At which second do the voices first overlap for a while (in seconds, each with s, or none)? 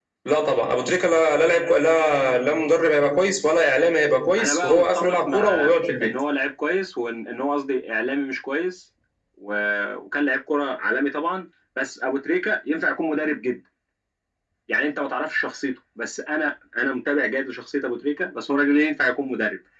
4.4 s